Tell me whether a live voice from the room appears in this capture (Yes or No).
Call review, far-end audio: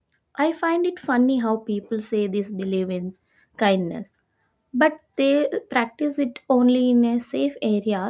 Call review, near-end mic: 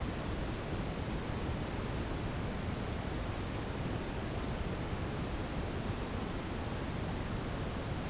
No